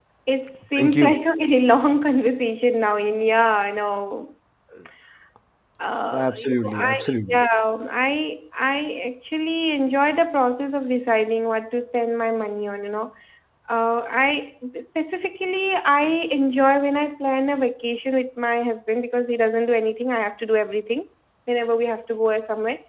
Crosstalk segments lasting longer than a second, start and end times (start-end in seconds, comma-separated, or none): 6.1-7.4